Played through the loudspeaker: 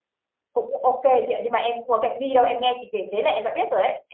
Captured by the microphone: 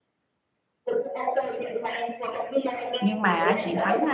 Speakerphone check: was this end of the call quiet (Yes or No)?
No